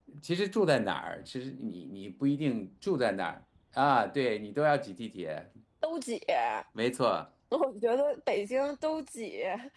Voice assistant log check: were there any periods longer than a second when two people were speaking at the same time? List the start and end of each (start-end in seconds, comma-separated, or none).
none